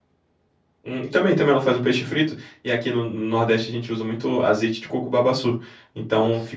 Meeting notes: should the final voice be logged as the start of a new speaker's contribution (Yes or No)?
No